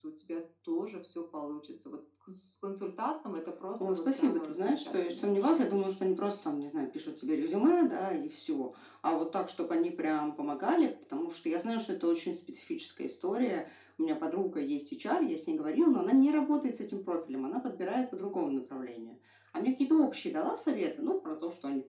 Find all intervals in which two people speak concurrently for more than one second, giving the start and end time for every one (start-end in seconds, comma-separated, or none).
3.9-5.9